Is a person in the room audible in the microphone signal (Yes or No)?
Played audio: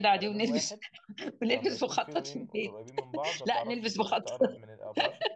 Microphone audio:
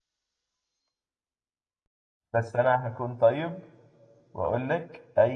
Yes